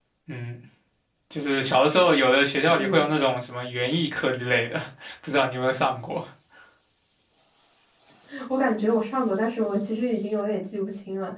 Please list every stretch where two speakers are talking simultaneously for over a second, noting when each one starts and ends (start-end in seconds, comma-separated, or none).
none